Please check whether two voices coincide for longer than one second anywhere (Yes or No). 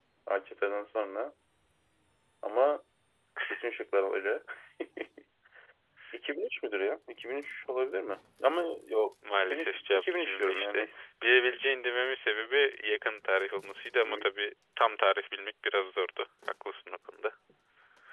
Yes